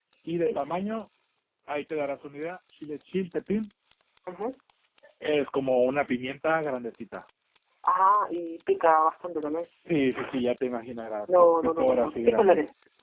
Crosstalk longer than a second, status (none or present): present